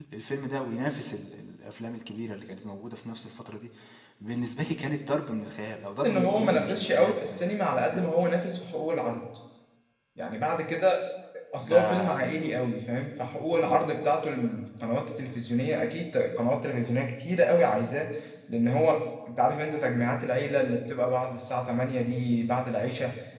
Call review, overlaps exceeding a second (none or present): present